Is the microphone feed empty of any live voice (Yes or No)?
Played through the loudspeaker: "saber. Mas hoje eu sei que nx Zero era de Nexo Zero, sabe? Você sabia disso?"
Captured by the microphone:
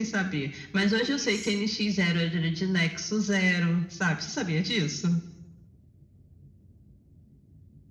No